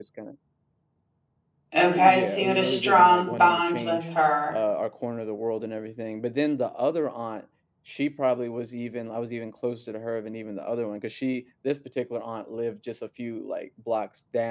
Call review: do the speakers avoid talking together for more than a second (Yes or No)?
No